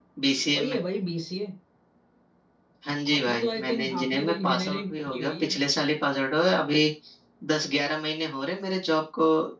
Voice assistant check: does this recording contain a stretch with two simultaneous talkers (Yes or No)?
Yes